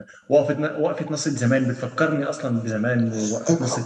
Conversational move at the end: taking over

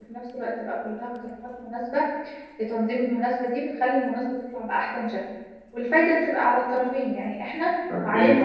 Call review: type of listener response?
listening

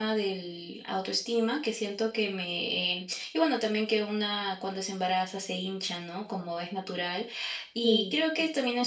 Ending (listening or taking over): listening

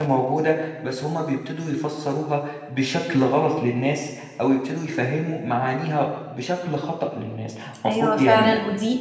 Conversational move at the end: taking over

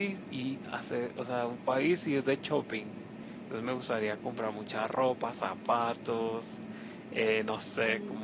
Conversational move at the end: listening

